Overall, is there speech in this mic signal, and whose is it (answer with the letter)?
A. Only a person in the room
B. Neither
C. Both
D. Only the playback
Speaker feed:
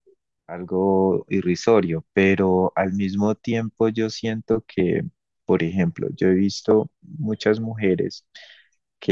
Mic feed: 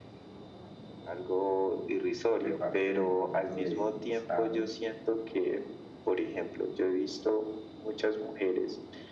C